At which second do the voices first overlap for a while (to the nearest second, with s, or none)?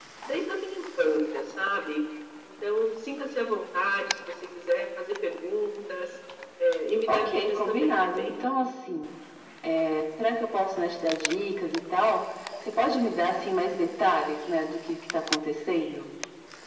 7 s